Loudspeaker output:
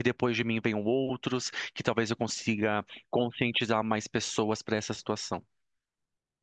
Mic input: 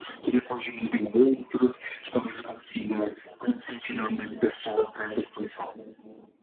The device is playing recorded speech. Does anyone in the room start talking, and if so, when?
none

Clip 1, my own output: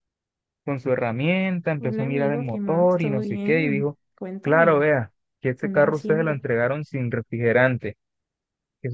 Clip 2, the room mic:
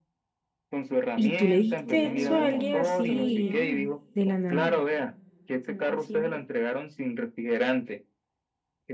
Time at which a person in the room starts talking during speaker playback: 1.1 s

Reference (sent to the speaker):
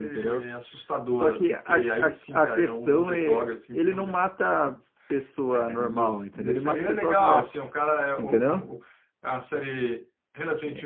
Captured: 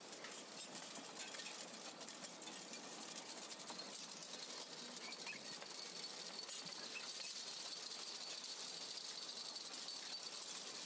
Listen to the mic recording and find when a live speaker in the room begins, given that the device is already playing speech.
none

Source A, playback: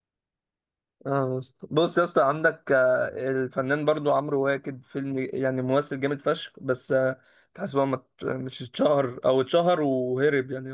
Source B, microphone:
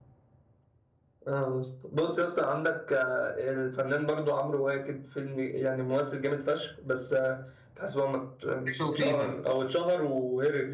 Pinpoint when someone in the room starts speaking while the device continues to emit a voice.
8.7 s

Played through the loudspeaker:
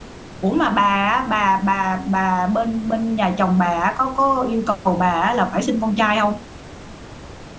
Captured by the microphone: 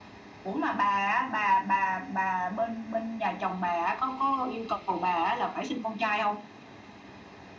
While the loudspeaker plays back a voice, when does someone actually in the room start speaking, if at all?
none

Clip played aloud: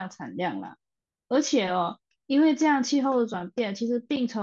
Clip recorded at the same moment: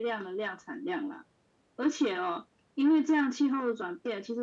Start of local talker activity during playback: none

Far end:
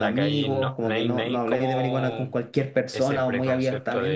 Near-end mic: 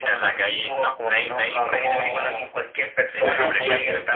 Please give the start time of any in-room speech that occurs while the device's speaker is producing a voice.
3.2 s

